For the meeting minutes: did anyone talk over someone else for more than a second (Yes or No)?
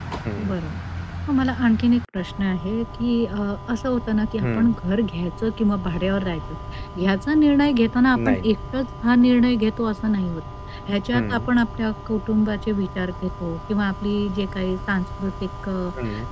No